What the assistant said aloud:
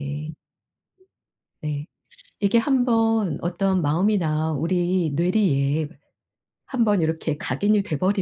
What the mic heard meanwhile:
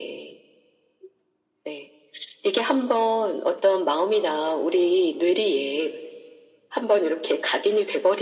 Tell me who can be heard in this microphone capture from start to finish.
echo only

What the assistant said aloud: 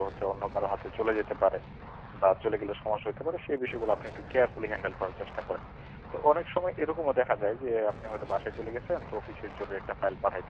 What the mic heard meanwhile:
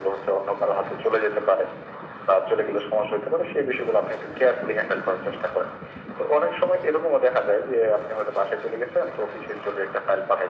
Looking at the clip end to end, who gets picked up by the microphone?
echo only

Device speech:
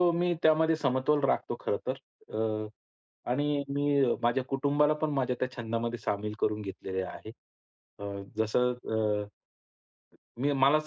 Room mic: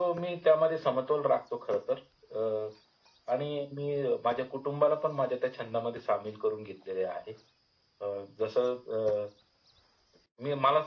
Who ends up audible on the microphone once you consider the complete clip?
echo only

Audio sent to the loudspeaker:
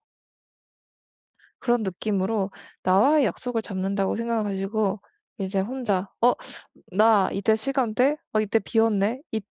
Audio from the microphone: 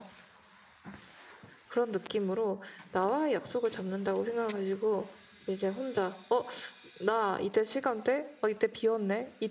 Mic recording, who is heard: echo only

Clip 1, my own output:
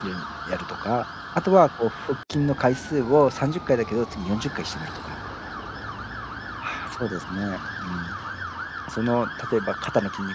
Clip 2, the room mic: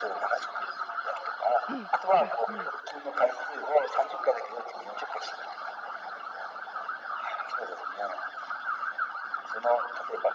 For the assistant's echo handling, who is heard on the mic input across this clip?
both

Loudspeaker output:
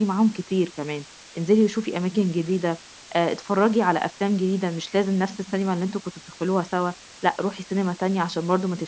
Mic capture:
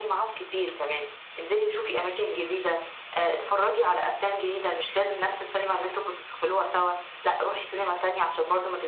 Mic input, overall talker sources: echo only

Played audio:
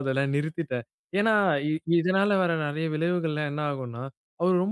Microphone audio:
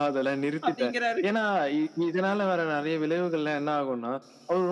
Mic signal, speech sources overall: both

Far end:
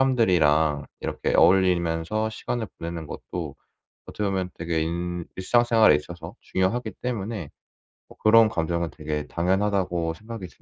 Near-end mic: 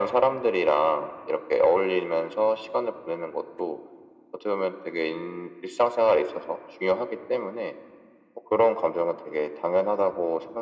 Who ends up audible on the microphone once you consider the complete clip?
echo only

